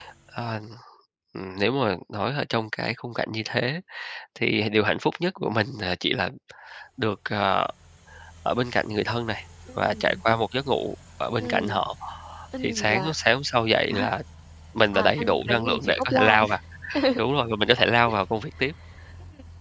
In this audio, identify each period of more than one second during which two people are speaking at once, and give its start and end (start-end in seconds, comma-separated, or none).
14.9-16.3